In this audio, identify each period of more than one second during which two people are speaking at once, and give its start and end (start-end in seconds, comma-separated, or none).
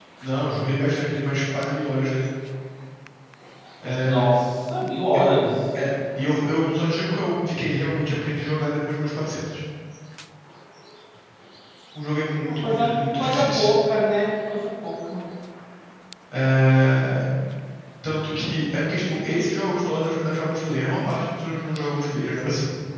12.4-13.7